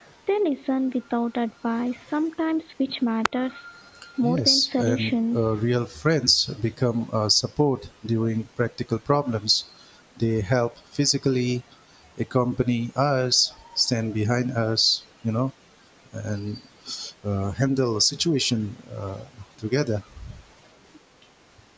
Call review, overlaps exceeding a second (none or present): present